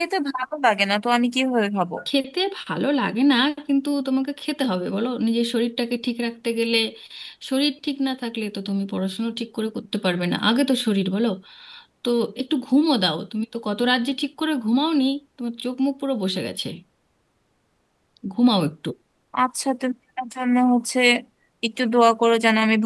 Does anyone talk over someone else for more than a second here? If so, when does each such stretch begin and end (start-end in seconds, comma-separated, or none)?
none